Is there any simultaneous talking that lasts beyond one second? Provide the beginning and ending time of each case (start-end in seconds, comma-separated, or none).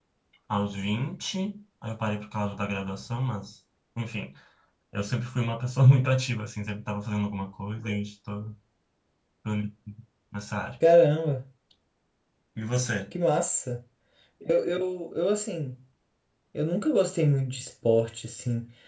none